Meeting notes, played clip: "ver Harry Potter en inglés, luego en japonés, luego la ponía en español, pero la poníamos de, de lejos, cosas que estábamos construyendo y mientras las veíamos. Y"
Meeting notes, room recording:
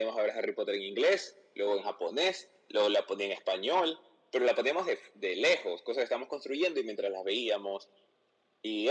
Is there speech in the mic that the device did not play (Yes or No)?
No